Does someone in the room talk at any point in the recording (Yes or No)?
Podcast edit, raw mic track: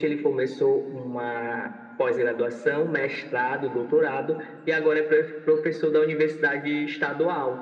No